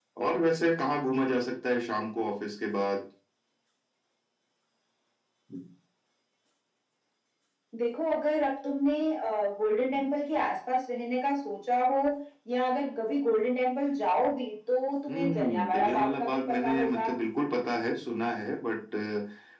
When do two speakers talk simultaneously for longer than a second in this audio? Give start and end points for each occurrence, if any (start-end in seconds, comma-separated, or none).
15.1-17.1